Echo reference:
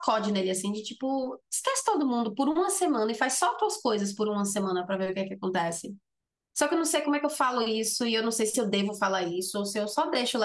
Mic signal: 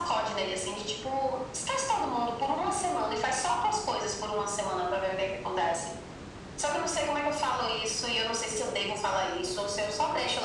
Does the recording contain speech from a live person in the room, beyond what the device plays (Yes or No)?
No